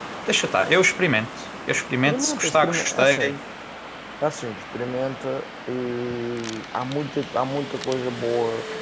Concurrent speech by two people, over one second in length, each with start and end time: 2.0-3.4

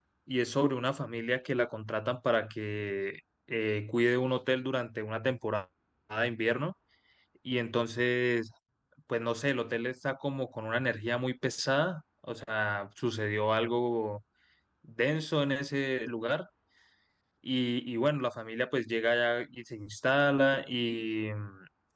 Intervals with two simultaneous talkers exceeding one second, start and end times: none

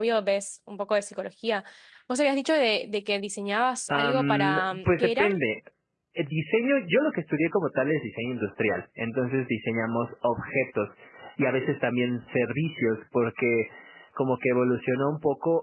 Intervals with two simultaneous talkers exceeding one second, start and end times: 3.9-5.3

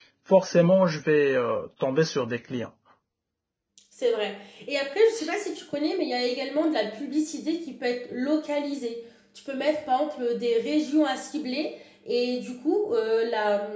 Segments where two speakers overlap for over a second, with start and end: none

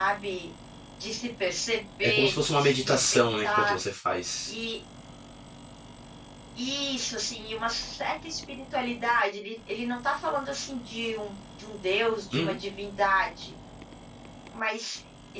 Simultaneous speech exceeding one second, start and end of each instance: 2.0-3.7

